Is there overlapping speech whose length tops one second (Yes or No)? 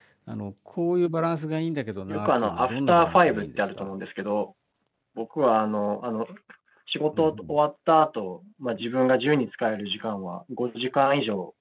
Yes